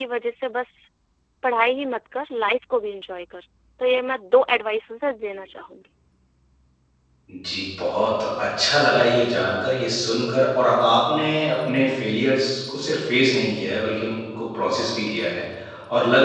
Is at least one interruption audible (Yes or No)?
No